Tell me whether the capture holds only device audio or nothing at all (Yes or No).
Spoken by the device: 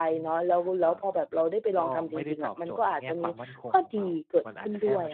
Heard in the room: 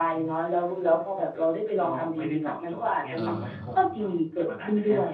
No